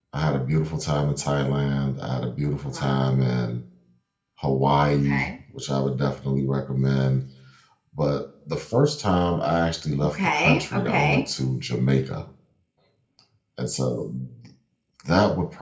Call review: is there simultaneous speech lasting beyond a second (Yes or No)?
Yes